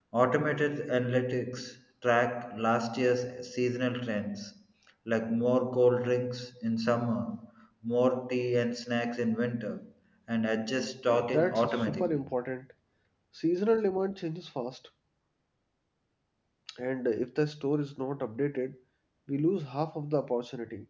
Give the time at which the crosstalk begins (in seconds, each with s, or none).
11.1 s